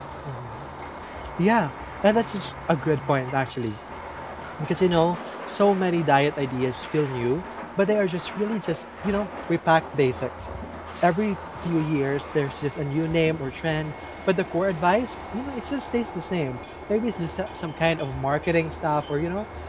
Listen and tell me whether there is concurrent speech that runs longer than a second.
No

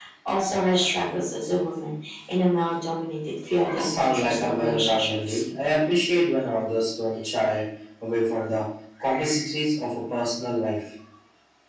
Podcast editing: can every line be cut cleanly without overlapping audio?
No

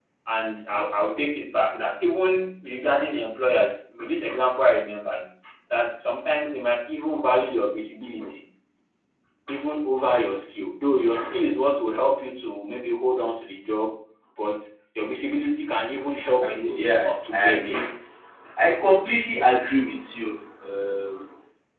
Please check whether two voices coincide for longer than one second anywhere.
Yes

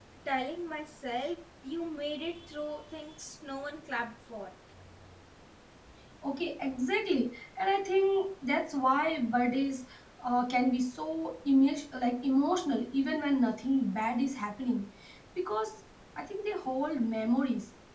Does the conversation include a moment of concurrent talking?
No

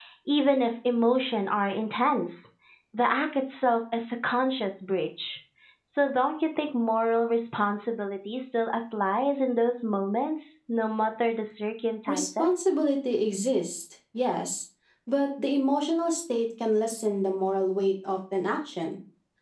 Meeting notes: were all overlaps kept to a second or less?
Yes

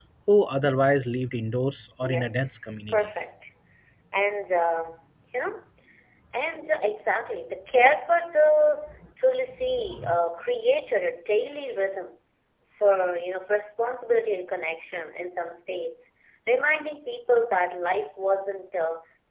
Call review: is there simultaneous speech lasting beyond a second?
Yes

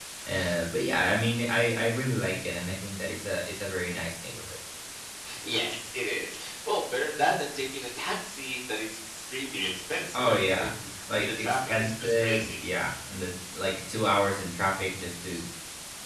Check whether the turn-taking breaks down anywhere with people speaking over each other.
Yes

